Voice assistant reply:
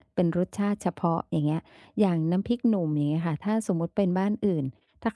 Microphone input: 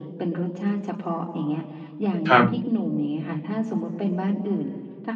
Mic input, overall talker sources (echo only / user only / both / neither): both